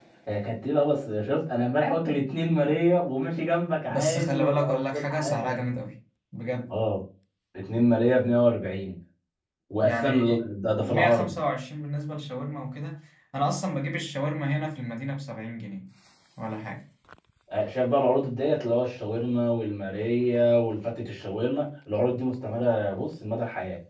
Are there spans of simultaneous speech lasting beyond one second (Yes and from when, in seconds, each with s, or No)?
Yes, from 3.9 s